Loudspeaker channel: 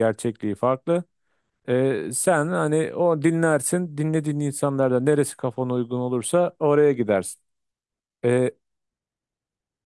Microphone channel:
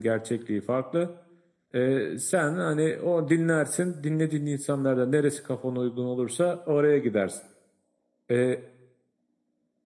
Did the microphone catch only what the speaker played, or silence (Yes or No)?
Yes